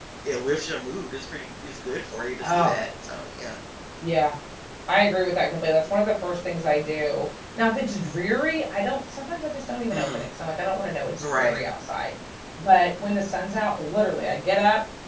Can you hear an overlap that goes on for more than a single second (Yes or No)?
No